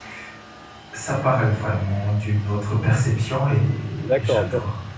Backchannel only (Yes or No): No